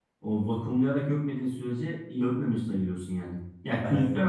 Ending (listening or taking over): listening